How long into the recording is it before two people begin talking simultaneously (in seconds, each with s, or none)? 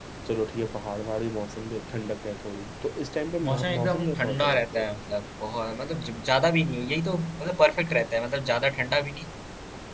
3.4 s